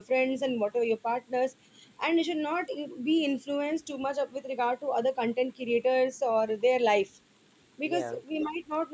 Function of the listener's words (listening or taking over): listening